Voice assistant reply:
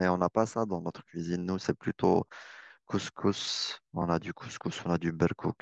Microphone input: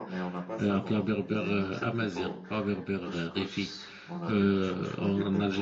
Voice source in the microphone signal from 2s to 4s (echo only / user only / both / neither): both